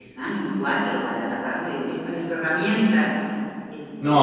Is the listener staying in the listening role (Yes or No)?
No